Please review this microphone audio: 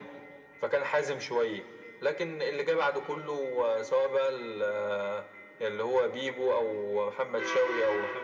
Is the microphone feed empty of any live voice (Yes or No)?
Yes